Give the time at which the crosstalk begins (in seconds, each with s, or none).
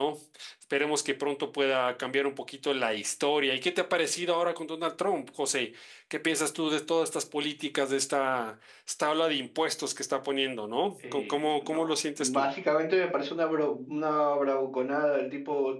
11.0 s